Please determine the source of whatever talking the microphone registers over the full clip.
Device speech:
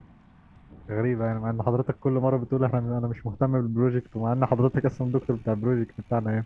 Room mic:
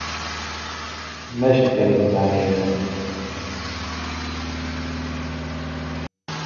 user only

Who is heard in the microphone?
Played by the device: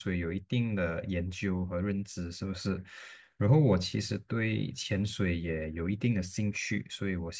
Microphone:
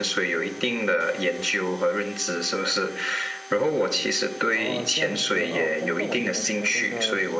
both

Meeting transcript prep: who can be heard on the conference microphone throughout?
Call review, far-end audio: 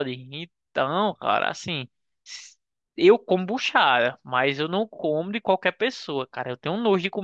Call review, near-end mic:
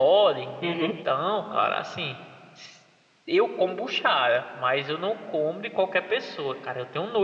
both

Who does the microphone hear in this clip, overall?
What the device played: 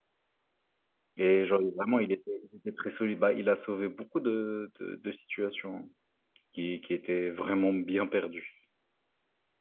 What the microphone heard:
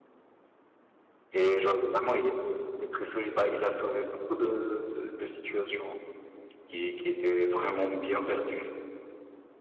echo only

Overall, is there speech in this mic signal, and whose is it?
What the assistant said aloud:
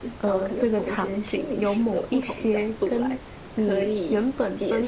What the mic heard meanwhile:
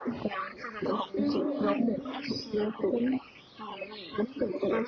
both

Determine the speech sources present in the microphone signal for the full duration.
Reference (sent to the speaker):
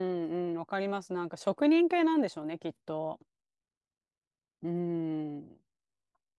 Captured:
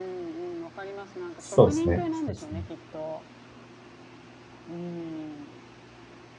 both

